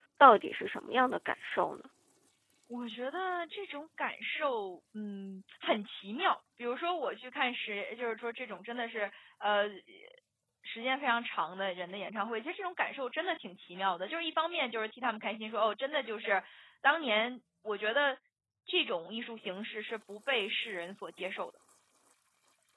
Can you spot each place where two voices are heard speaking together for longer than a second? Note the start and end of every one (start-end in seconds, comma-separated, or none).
none